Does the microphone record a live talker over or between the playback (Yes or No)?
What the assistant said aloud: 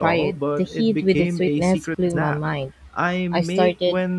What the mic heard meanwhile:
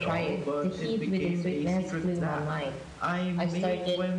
No